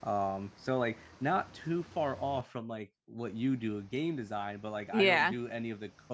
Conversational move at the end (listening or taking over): listening